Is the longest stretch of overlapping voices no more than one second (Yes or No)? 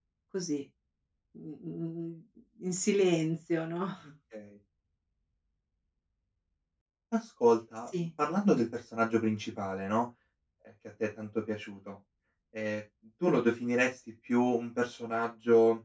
Yes